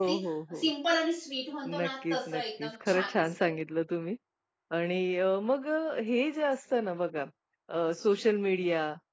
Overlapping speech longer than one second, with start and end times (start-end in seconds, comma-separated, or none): 1.8-3.3